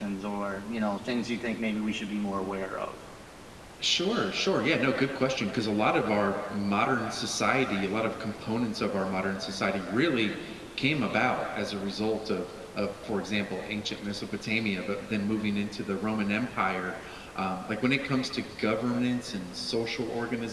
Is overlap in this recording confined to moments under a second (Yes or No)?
Yes